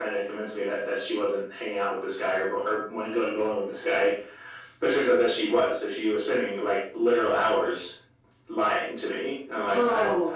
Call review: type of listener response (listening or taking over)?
taking over